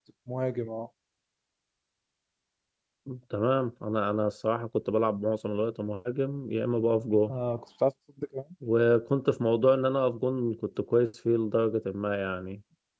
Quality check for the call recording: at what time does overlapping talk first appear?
none

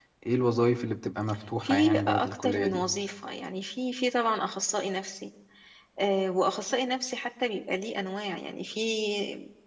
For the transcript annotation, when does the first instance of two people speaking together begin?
2 s

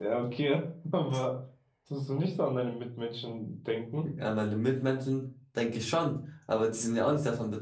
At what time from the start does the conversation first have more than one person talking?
none

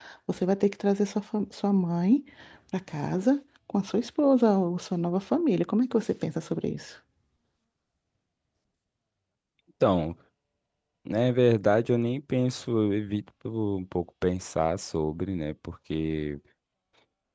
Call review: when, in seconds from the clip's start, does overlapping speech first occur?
none

